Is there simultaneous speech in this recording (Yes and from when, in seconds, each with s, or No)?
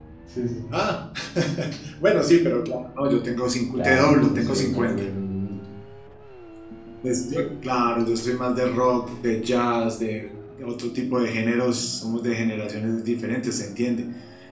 Yes, from 3.8 s